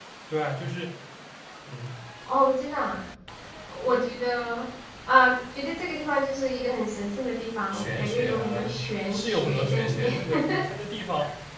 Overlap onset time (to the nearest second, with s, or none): 8 s